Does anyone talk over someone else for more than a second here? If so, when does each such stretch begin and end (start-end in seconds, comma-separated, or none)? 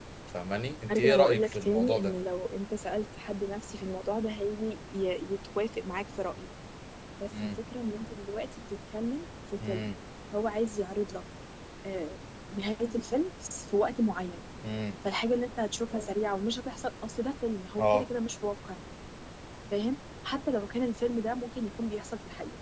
0.9-2.1